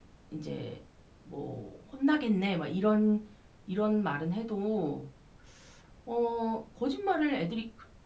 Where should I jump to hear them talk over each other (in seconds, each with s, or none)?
none